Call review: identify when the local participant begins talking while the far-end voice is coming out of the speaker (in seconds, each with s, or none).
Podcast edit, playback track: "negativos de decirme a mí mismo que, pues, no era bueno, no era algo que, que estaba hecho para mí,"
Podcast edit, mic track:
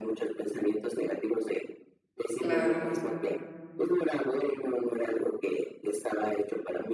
2.4 s